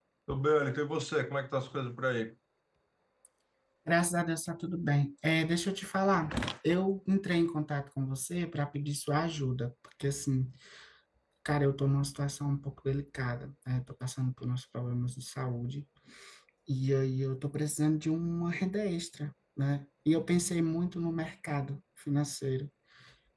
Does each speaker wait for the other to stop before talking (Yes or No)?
Yes